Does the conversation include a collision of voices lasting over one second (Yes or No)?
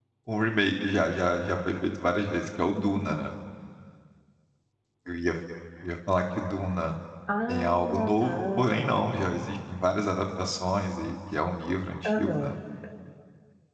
Yes